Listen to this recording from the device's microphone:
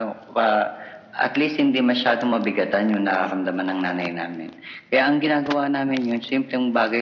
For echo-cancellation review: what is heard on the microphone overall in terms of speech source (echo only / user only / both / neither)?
echo only